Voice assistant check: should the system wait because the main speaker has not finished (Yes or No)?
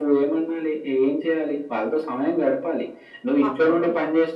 Yes